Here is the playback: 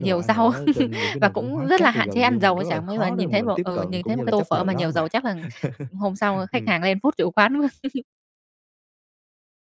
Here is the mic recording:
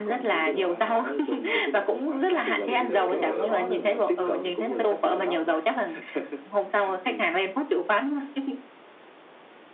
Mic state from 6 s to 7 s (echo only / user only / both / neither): echo only